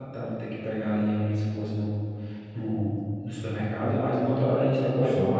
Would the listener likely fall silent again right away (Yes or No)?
Yes